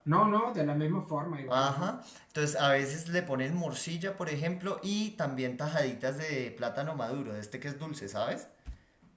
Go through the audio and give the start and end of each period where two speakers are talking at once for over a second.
none

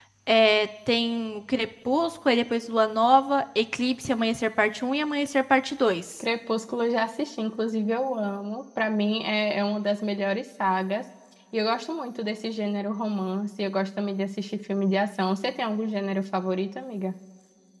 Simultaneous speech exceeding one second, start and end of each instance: none

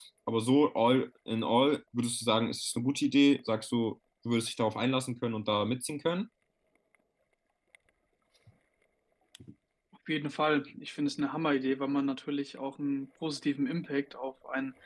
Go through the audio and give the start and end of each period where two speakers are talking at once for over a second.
none

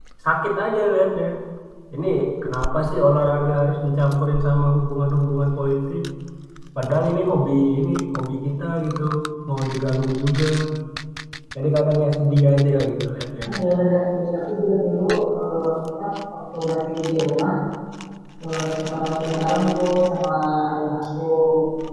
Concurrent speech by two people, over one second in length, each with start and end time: none

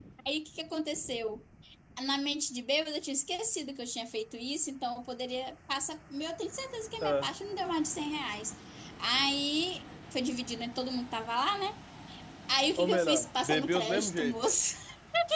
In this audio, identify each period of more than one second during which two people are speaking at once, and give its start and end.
12.8-14.5

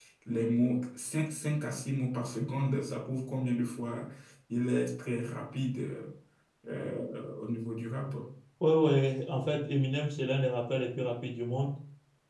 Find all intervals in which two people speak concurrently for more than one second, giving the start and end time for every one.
none

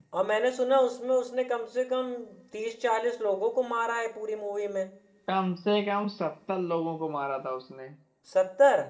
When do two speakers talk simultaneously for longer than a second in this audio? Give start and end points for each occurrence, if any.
none

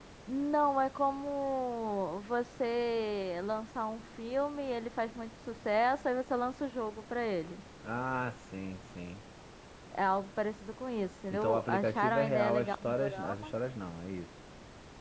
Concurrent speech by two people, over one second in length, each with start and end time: 11.3-13.5

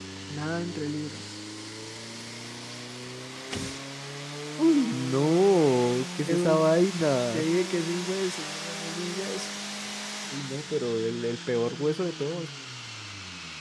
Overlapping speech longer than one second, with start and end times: none

